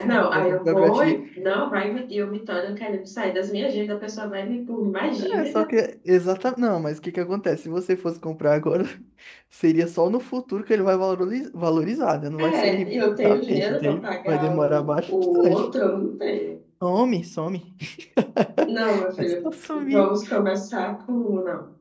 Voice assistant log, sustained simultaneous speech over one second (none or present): present